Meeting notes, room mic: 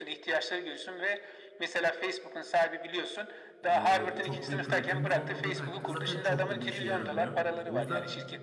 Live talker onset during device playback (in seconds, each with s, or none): 3.7 s